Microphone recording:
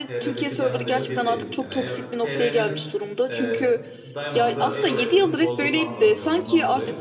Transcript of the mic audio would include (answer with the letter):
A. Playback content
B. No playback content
A